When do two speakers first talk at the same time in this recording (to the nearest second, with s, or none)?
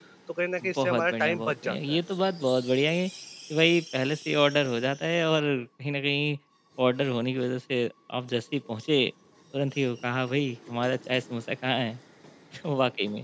1 s